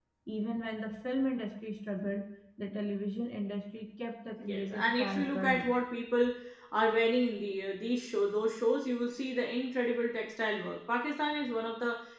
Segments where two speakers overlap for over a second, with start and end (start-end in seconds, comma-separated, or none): 4.4-5.7